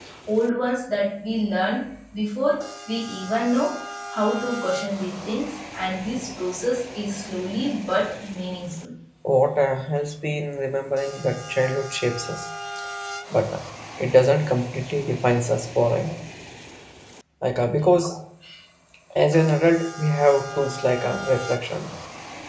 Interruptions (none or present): none